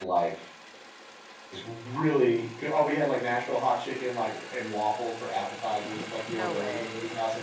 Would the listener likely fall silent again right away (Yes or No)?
Yes